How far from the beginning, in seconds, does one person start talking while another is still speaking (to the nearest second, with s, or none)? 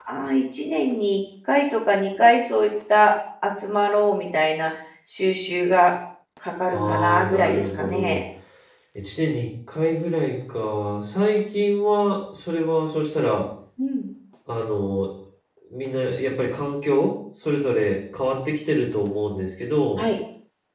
7 s